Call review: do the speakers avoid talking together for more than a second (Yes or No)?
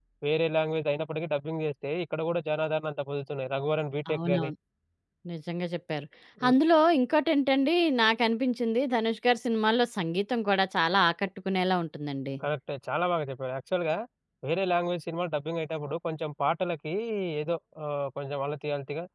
Yes